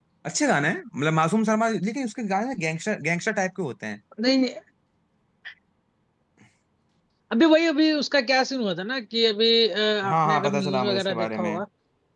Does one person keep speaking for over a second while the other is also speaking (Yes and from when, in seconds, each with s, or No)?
Yes, from 10.0 s